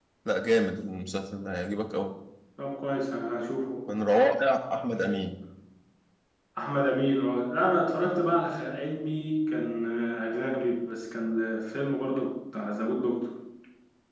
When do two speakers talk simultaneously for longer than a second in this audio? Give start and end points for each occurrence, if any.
none

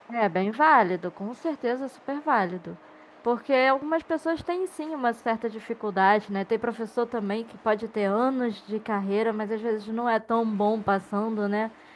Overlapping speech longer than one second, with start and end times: none

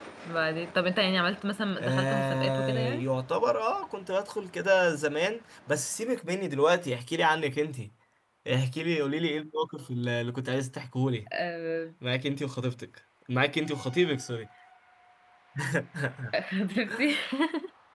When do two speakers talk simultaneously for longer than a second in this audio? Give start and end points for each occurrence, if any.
1.8-3.0

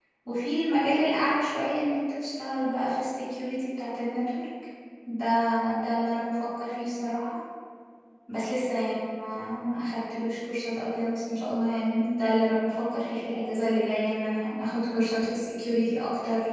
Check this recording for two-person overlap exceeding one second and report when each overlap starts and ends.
none

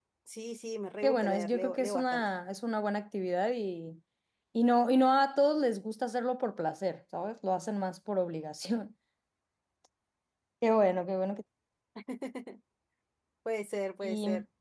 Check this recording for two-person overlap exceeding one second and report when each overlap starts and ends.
1.0-2.2

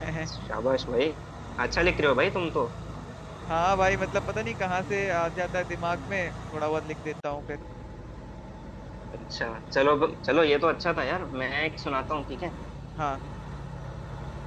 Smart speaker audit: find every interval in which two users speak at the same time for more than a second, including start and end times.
none

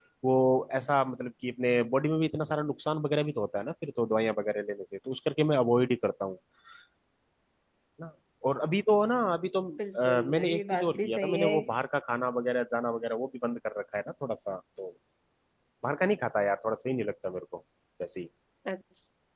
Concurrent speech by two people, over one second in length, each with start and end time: 10.0-11.5

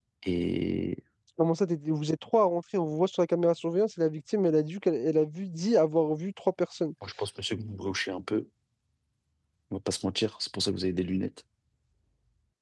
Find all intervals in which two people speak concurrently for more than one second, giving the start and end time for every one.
none

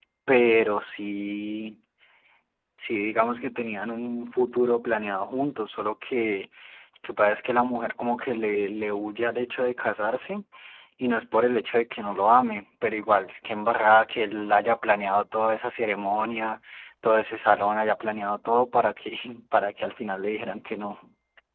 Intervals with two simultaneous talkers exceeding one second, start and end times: none

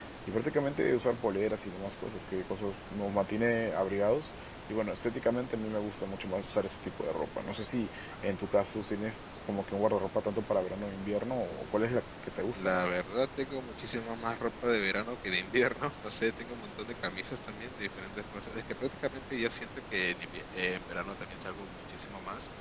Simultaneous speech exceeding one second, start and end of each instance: none

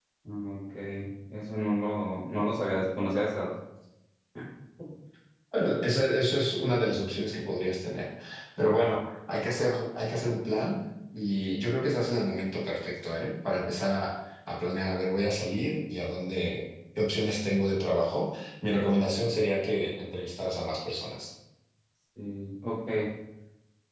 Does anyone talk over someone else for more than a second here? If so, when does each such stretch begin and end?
none

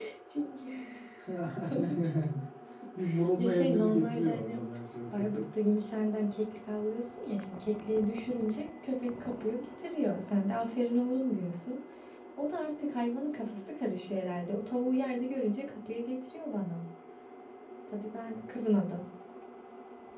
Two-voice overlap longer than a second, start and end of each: 3.4-4.6

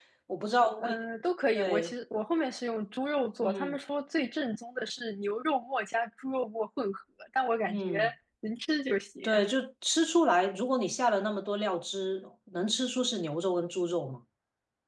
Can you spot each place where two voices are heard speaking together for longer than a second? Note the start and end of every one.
none

